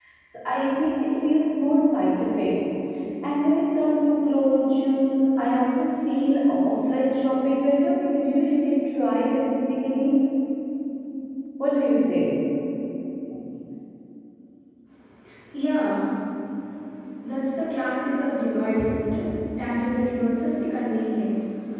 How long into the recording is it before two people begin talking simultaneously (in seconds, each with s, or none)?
none